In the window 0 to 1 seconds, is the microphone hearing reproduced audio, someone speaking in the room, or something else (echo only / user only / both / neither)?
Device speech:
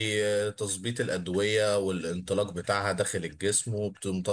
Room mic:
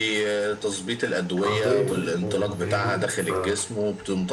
echo only